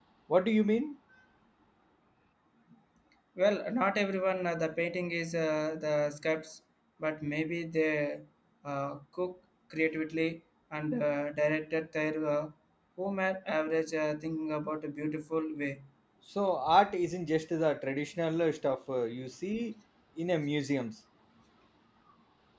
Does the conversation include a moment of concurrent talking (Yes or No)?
No